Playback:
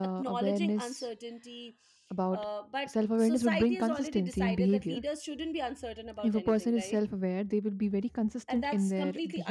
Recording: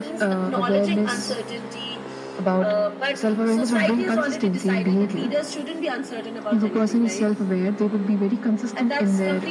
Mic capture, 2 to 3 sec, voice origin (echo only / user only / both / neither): echo only